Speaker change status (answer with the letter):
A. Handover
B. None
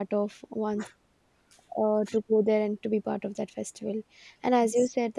B